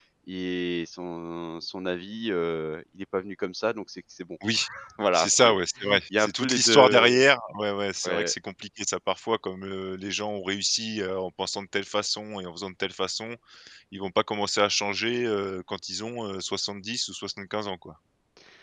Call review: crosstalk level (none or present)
present